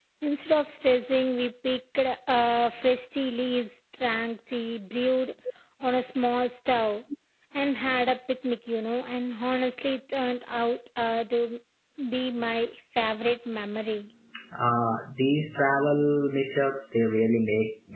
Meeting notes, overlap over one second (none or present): none